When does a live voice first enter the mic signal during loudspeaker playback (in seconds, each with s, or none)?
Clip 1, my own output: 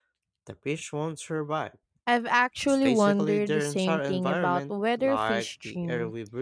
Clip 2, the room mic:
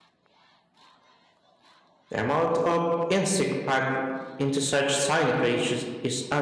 2.1 s